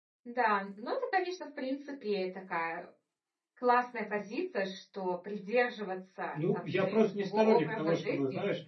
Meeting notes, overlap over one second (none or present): present